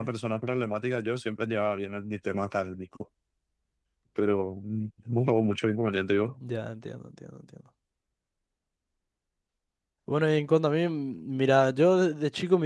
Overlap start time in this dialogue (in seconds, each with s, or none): none